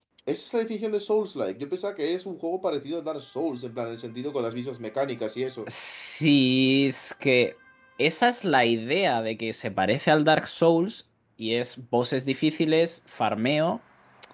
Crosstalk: none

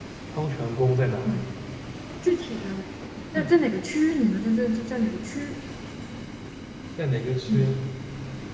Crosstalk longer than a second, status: none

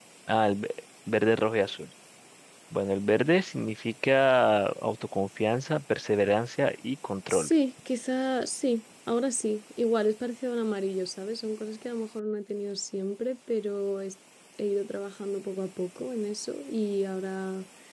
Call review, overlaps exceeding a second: none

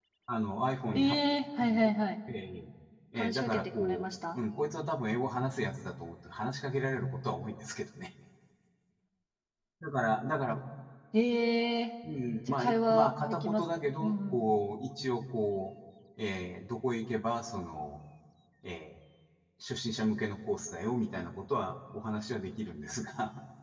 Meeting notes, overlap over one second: present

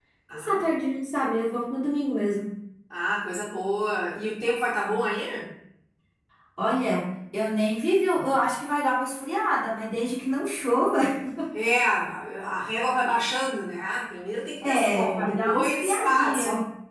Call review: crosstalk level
present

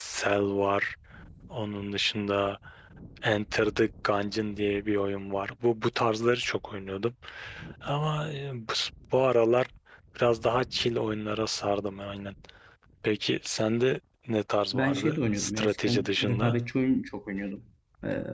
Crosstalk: present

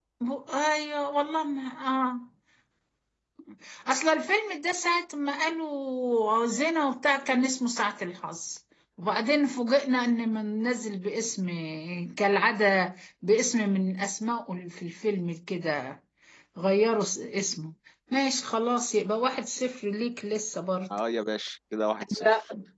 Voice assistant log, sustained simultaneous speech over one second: none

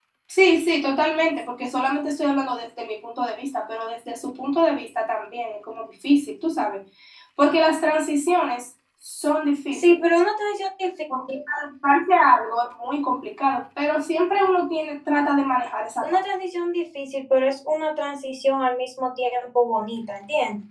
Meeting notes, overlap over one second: none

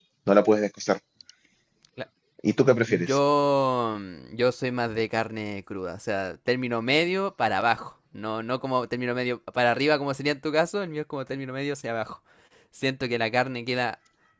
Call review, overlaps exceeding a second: none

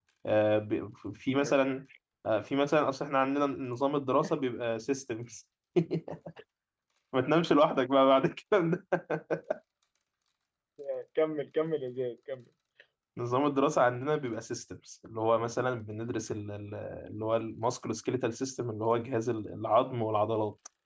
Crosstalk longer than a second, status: none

